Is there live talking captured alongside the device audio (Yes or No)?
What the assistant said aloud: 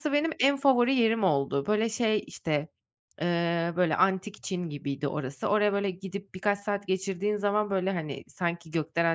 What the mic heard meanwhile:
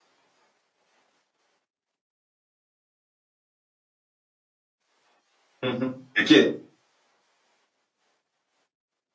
Yes